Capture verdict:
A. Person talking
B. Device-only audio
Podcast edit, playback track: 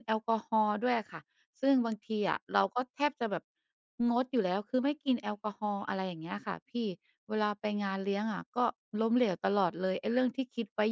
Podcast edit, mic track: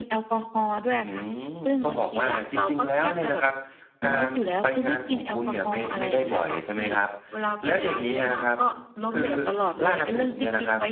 A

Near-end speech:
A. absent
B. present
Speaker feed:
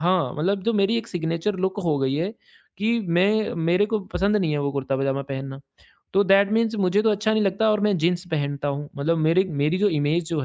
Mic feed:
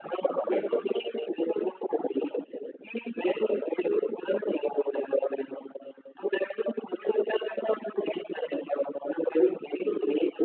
B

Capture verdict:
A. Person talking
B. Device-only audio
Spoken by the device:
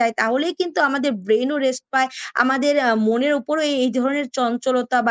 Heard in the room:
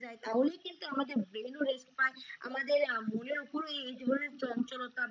B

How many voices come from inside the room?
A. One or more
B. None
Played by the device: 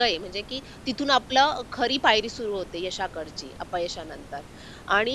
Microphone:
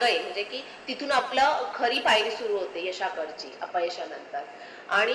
B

